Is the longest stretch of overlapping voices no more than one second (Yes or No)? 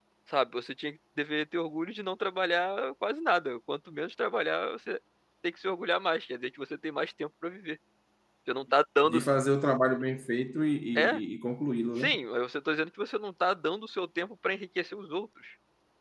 Yes